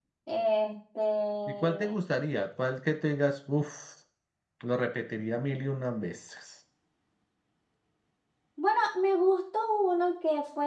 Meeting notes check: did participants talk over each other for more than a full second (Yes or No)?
No